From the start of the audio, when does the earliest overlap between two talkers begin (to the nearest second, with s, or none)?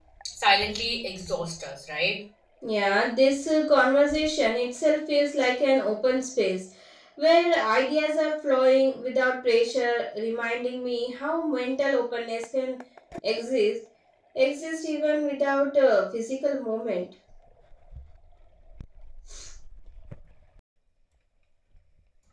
none